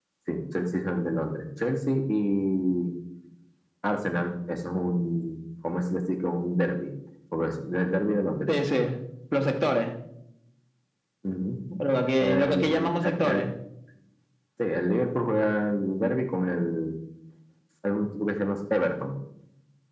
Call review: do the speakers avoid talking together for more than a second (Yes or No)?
No